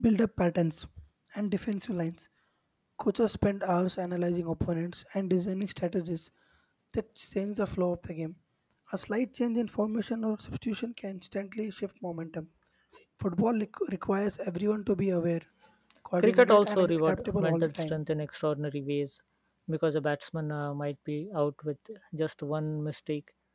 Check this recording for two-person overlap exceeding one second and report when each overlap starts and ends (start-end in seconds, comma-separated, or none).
16.2-18.0